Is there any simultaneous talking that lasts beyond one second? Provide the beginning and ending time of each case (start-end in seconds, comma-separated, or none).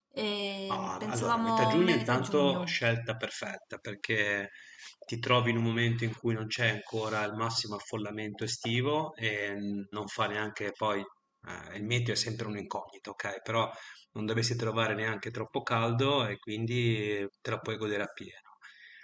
0.7-2.8